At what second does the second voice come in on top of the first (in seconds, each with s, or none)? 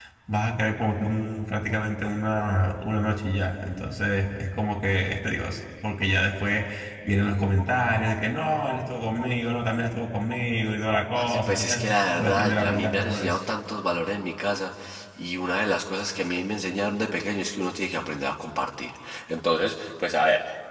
11.2 s